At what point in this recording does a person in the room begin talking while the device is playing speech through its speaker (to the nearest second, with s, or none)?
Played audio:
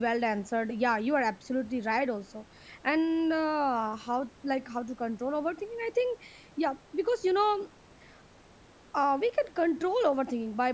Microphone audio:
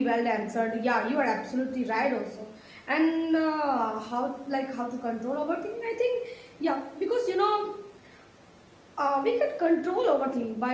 none